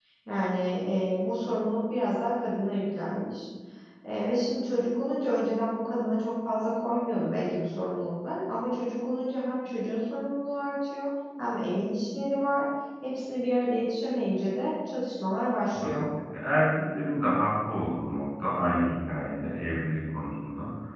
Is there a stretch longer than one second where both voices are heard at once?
No

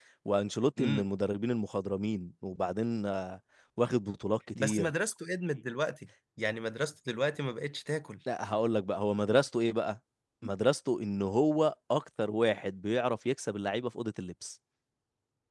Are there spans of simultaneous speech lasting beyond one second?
No

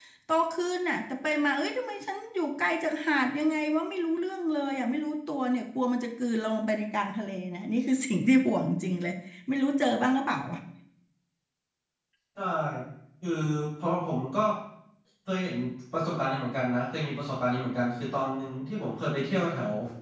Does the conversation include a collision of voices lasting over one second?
No

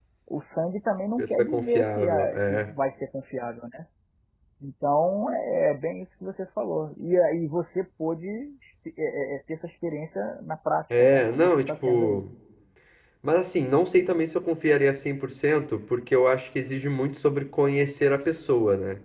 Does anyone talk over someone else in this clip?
Yes, from 1.2 s

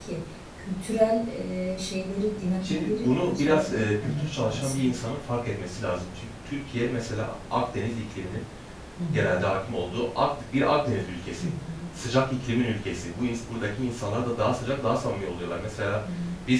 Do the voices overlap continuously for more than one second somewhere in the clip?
Yes, from 2.6 s

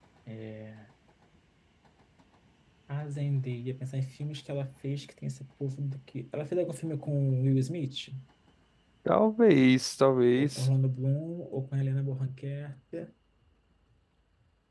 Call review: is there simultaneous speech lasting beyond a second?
No

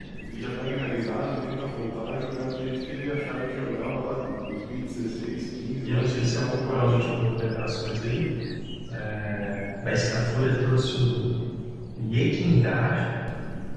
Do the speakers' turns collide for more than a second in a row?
Yes, from 5.9 s

